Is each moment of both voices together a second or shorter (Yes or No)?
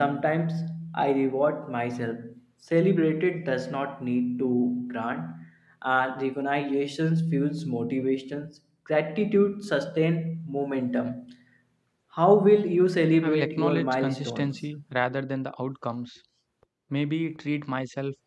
No